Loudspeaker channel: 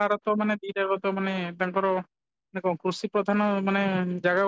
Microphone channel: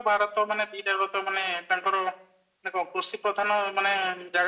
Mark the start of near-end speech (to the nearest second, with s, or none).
none